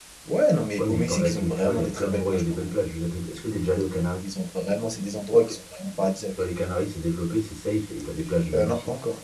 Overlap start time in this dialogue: 0.8 s

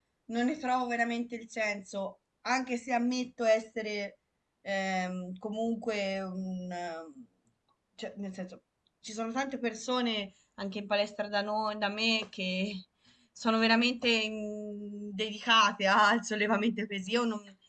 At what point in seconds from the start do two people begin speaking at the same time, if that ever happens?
none

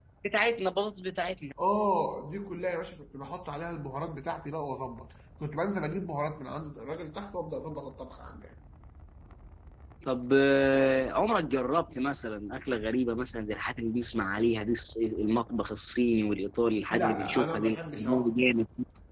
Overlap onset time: 16.9 s

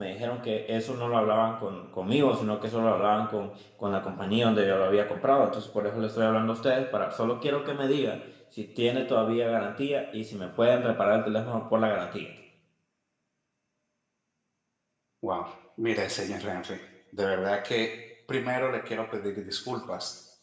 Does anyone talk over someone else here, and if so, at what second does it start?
none

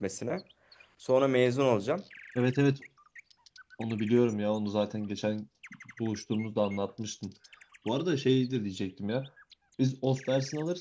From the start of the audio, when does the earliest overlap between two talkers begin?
none

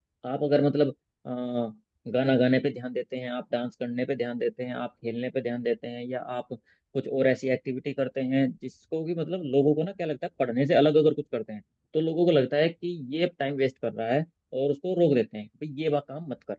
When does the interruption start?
none

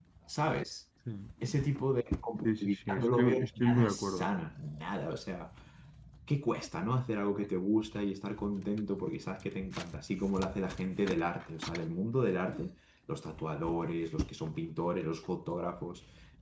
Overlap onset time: 2.4 s

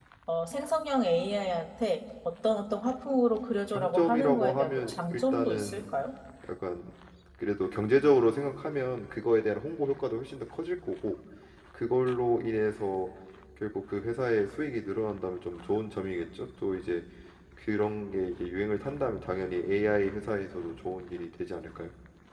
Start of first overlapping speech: 3.7 s

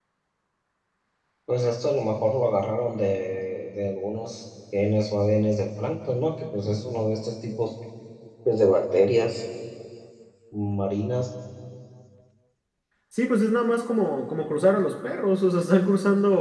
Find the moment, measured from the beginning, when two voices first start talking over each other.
none

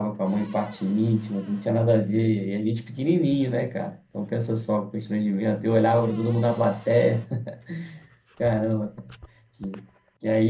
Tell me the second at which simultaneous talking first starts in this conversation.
none

